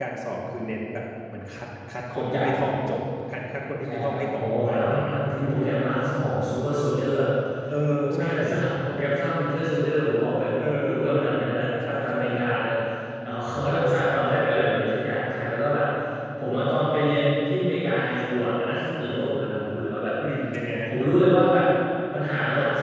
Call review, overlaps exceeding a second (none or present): present